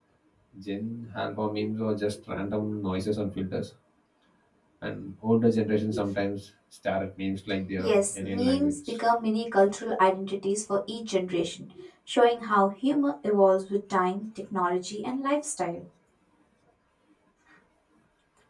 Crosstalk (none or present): present